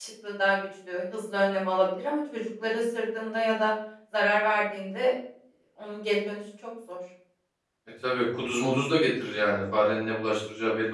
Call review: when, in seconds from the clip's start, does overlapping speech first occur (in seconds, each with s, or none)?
none